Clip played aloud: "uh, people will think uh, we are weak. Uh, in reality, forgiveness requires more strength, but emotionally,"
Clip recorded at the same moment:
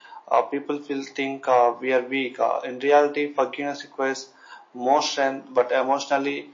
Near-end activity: none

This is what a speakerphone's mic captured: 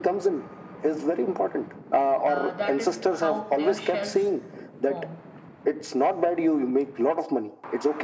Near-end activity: present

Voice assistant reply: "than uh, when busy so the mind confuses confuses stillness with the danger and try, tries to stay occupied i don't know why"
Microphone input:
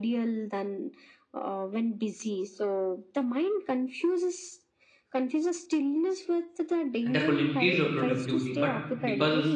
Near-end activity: present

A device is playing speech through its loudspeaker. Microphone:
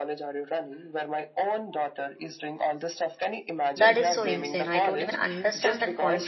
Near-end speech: present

